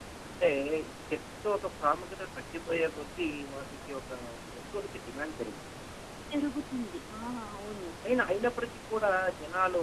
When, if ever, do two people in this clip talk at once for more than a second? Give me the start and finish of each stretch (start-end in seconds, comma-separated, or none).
none